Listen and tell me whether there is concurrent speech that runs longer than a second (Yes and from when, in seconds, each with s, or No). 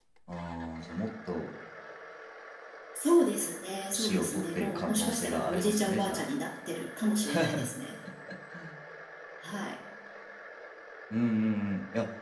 Yes, from 3.9 s